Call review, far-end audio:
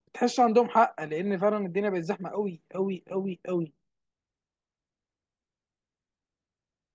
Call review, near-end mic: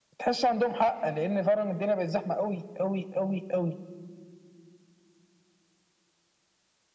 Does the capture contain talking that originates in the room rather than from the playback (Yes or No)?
No